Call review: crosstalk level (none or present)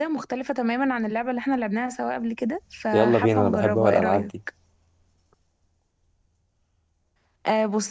present